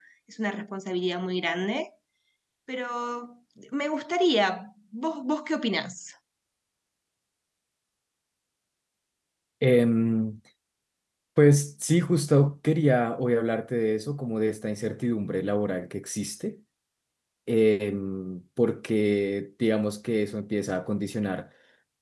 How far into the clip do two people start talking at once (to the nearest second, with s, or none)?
none